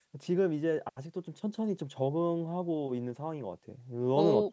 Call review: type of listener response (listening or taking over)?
taking over